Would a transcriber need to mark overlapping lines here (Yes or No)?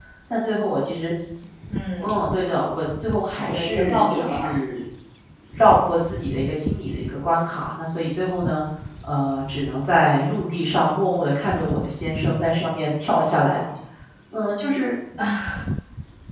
Yes